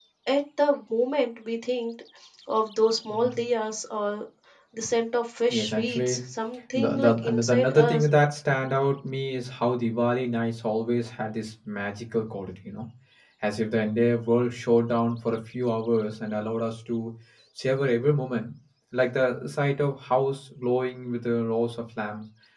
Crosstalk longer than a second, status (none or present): present